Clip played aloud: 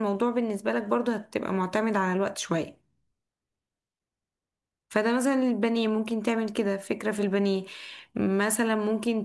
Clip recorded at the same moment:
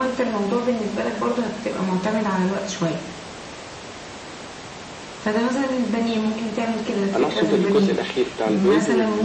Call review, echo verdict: present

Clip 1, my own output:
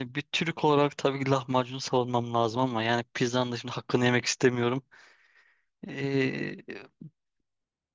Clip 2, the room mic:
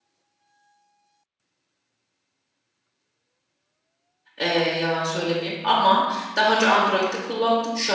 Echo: none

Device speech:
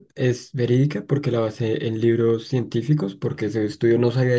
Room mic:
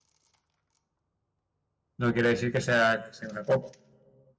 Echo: none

